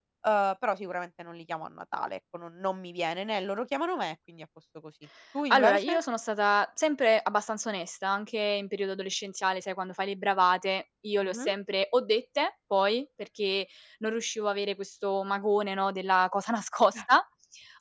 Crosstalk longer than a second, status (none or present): none